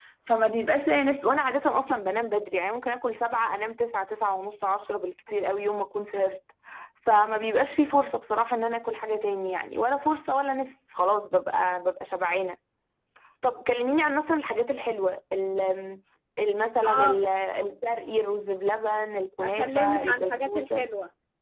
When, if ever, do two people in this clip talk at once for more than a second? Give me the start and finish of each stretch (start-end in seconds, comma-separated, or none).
19.4-20.9